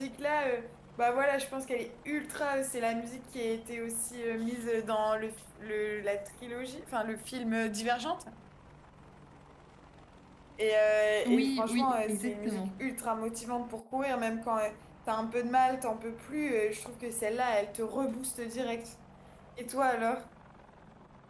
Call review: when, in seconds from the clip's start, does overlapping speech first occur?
11.3 s

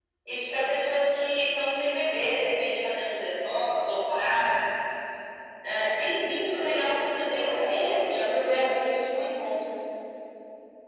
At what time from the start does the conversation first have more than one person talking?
6.5 s

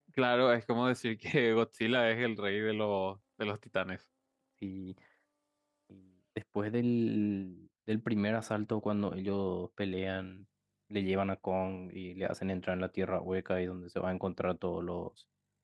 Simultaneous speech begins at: none

